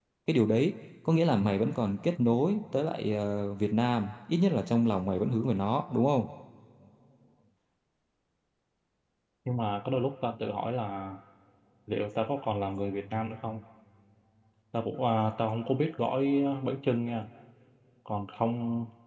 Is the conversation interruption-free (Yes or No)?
Yes